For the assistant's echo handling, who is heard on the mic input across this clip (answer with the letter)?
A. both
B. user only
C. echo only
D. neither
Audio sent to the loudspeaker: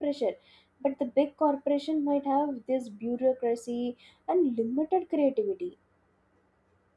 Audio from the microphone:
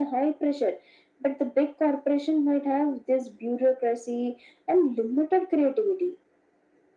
C